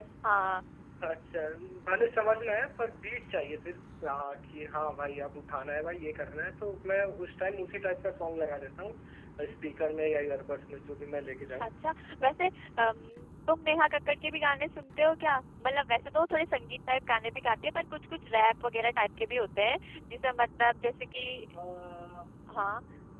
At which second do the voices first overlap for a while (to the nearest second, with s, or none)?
none